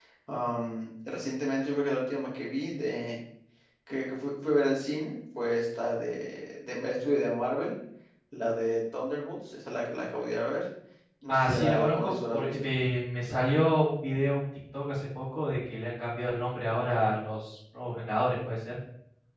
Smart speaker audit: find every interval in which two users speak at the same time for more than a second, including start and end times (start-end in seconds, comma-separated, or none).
11.3-12.6